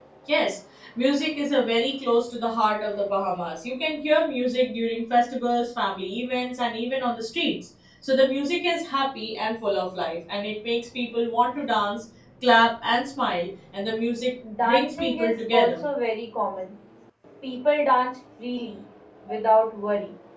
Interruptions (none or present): present